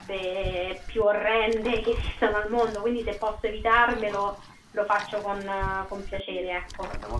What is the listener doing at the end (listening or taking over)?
taking over